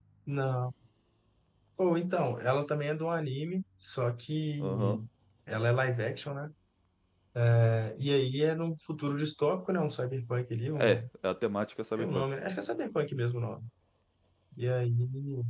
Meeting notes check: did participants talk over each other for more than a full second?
No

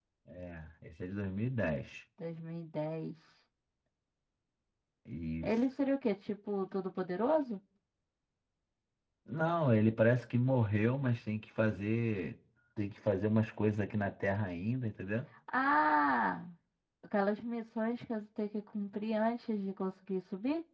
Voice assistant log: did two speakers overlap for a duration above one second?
No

